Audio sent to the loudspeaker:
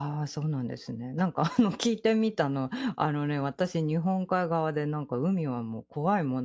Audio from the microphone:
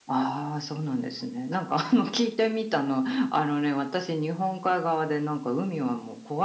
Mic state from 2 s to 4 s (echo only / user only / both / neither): echo only